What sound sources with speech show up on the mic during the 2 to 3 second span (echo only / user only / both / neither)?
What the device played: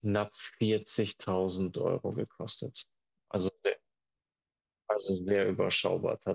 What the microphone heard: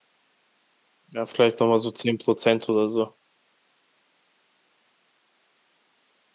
user only